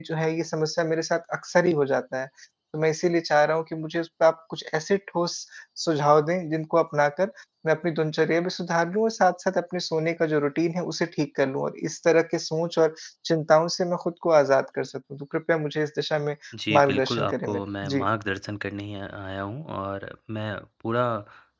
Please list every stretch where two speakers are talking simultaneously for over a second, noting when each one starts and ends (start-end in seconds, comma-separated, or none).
16.7-18.1